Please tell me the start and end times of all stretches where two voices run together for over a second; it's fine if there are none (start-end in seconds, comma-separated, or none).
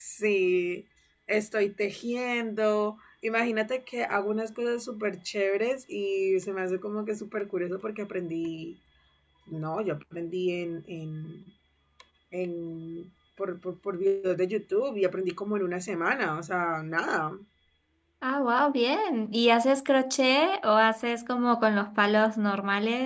none